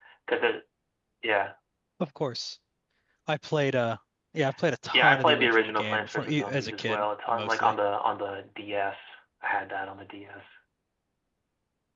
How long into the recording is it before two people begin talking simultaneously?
4.9 s

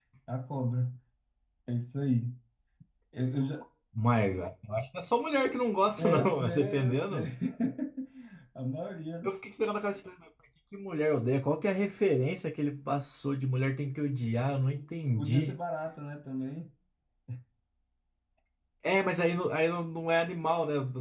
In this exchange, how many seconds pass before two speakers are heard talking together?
6.0 s

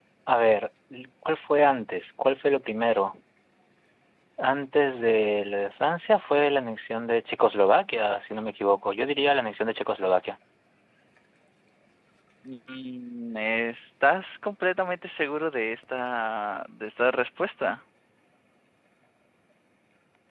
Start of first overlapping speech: none

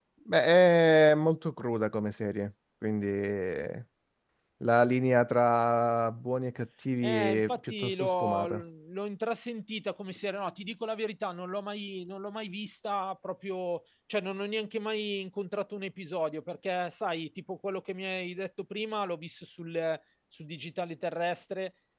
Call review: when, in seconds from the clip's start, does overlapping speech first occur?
7.0 s

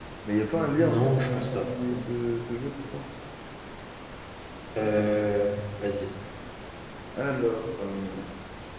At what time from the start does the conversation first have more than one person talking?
0.8 s

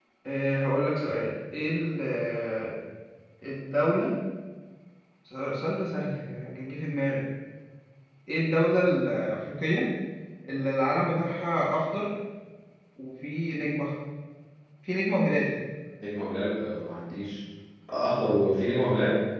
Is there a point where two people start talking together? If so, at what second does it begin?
none

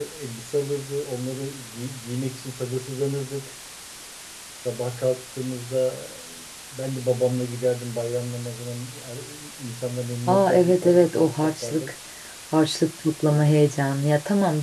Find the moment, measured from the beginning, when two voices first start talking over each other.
10.3 s

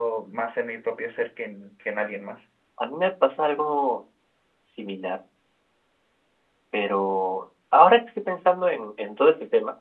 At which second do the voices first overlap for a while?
none

